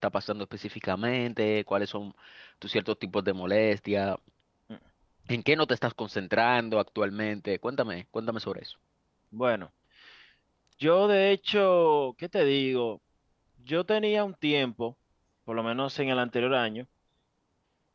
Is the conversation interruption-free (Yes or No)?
Yes